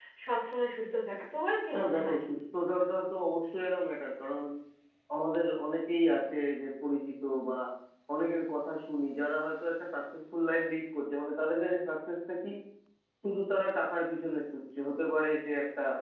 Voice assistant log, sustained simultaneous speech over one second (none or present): none